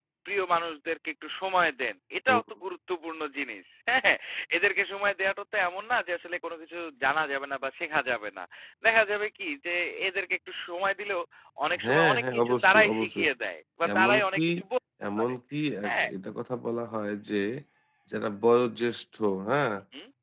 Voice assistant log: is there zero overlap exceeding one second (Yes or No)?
No